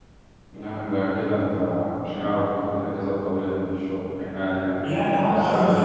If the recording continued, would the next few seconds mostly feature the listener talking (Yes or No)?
Yes